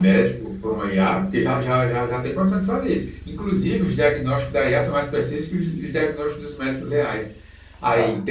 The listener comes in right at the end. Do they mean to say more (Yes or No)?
No